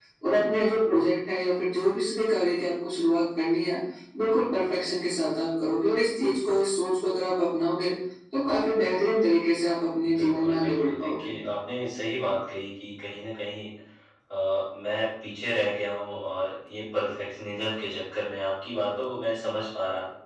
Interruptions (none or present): present